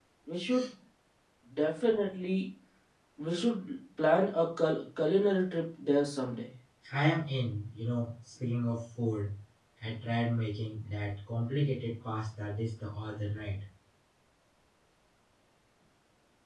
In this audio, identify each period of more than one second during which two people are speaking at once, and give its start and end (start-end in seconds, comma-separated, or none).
none